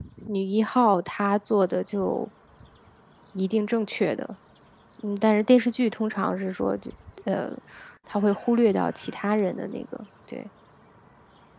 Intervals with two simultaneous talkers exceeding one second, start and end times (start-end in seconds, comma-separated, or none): none